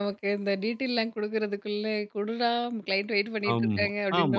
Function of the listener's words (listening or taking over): taking over